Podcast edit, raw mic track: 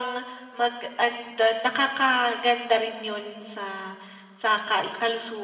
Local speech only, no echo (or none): none